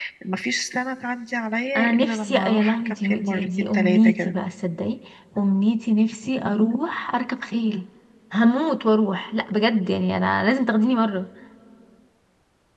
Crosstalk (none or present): present